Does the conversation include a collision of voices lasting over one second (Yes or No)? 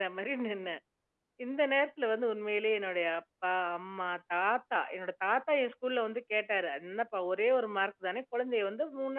No